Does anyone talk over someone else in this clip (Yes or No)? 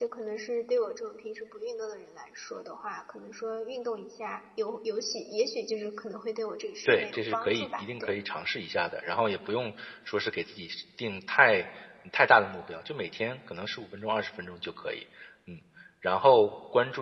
Yes